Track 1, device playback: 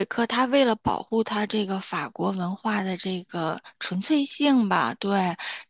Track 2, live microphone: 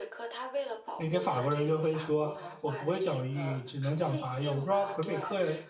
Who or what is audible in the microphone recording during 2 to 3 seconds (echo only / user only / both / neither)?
both